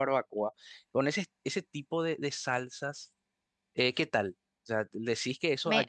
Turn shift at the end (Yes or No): No